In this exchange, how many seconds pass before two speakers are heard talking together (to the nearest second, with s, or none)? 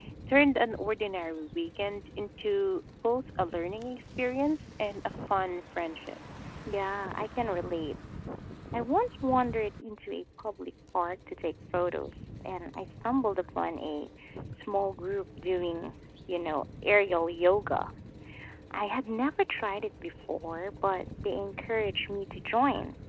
none